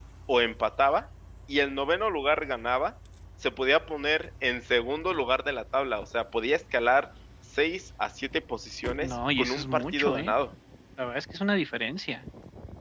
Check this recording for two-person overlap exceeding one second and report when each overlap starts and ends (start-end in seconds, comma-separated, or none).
9.0-10.3